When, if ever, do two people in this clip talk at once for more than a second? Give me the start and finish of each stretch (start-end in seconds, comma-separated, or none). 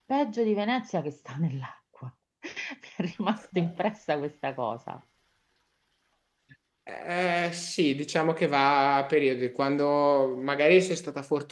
none